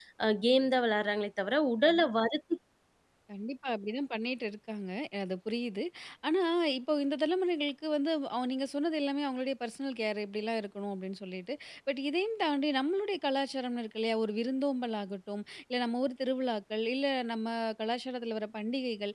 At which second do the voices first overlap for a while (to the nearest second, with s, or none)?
none